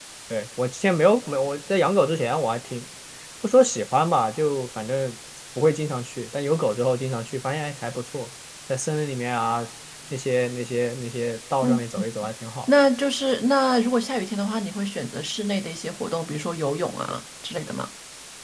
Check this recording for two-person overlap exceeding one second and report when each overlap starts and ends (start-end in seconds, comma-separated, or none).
none